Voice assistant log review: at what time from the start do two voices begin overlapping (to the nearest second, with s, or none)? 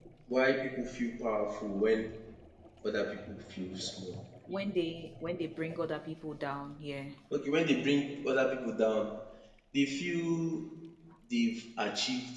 none